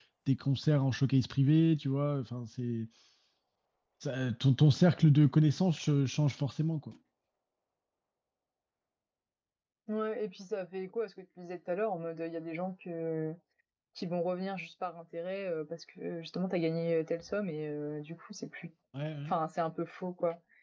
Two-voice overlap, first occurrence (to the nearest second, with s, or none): none